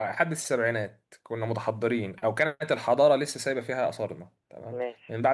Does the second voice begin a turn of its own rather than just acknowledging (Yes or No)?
No